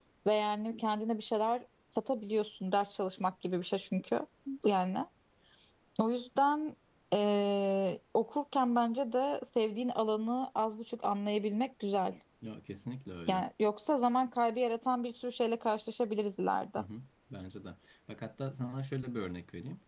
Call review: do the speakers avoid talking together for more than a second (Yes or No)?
Yes